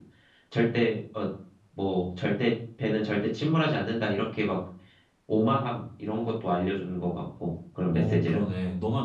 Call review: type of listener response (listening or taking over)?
taking over